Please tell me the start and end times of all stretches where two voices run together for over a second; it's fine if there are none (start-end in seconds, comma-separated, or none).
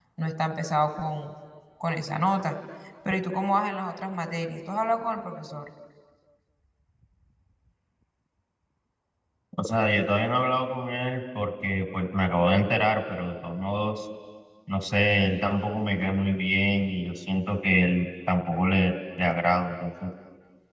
none